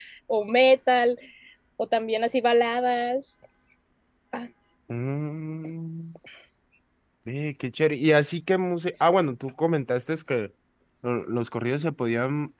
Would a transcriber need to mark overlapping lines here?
No

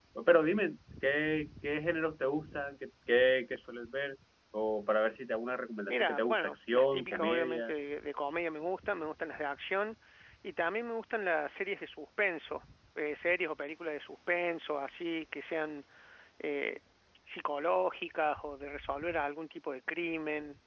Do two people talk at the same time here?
Yes, from 5.9 s

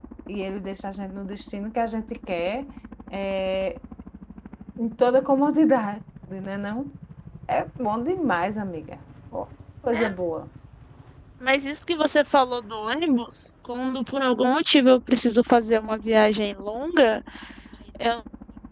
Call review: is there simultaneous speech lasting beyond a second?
No

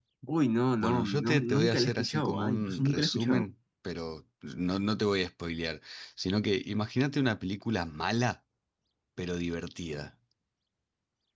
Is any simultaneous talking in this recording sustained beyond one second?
Yes, from 0.8 s

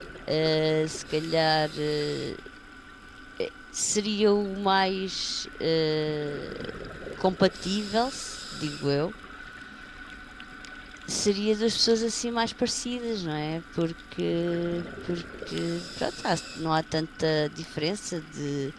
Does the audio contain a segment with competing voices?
No

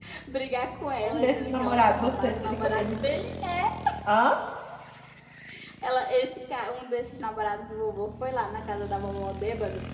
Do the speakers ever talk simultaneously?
Yes, from 1.0 s

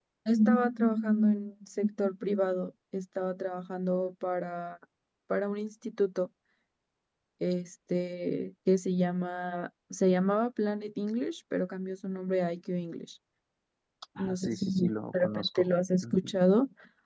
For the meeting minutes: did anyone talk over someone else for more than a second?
Yes, from 14.2 s

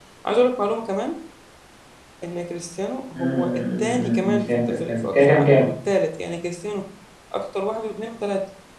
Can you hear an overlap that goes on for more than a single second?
Yes, from 3.2 s

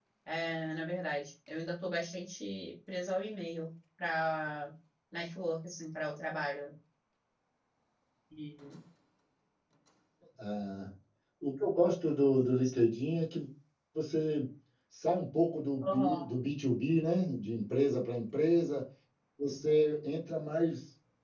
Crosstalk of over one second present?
No

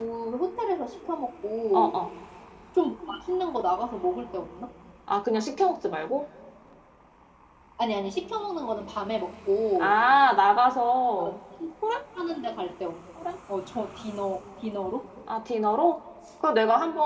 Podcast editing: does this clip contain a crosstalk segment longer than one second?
No

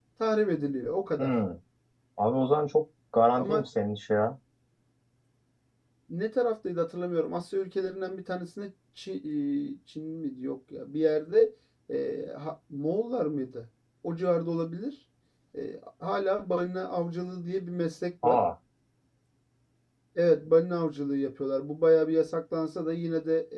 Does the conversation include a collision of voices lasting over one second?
No

